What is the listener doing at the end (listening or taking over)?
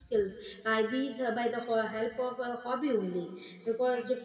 listening